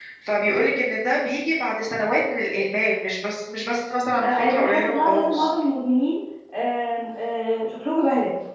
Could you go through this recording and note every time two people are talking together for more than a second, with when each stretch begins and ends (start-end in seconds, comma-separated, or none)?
4.2-5.5